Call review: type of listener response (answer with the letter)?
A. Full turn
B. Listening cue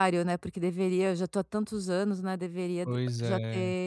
B